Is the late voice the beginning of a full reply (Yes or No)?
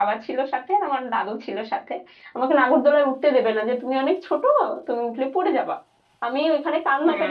No